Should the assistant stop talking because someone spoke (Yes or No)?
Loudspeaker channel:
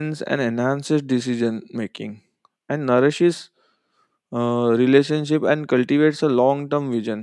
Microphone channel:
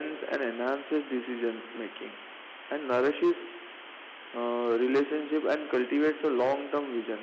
No